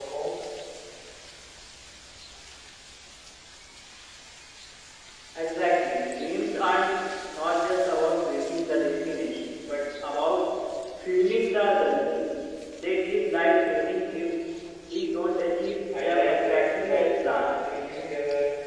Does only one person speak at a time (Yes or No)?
No